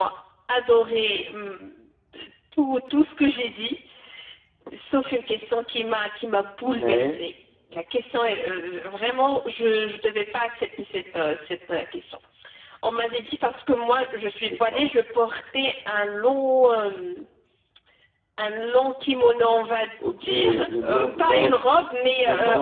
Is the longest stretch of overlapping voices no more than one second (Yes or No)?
No